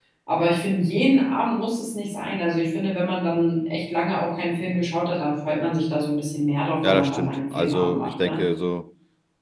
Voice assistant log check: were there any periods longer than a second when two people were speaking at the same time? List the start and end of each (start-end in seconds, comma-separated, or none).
6.8-8.4